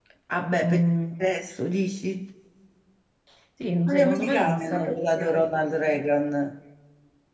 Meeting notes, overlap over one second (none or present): present